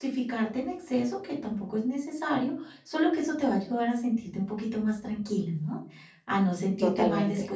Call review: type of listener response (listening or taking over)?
listening